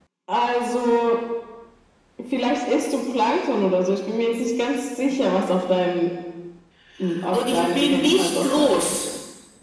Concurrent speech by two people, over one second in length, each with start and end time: 7.3-9.0

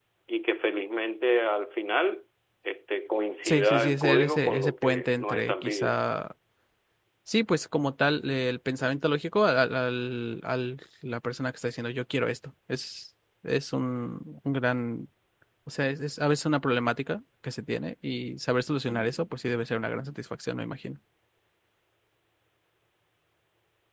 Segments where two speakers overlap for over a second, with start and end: 3.5-6.0

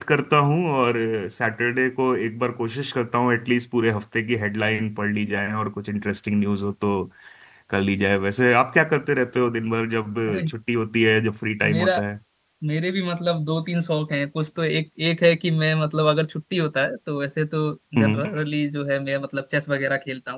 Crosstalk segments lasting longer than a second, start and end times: none

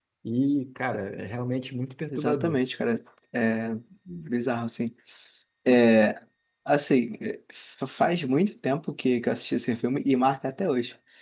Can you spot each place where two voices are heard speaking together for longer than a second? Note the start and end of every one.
none

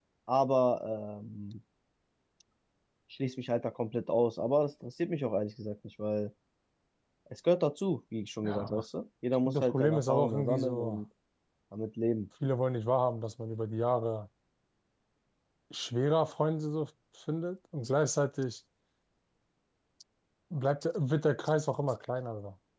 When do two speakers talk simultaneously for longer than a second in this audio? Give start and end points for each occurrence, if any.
9.4-11.0

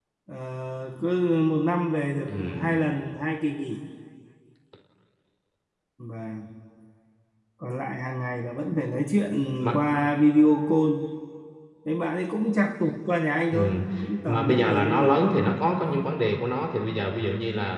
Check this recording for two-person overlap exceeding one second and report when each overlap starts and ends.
14.3-15.5

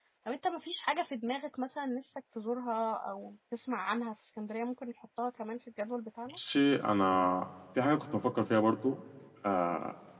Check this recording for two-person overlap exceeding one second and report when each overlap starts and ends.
none

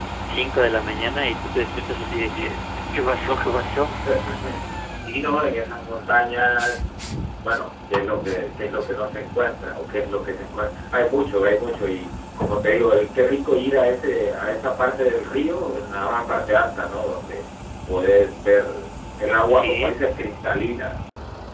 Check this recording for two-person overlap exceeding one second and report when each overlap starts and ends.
none

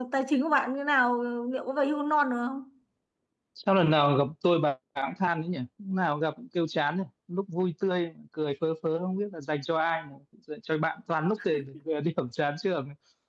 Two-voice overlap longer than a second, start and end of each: none

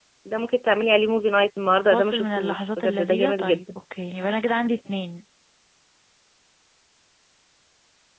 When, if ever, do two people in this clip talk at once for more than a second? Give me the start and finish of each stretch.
1.9-3.6

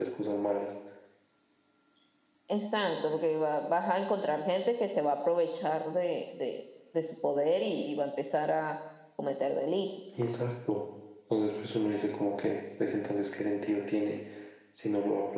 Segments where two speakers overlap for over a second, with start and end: none

